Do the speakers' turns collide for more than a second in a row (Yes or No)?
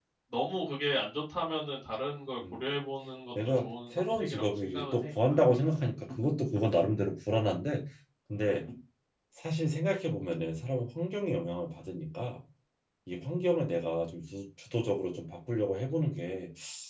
Yes